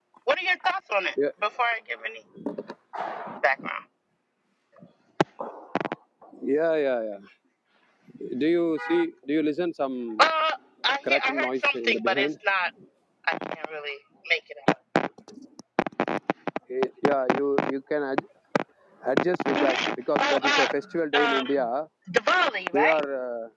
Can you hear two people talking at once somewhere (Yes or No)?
Yes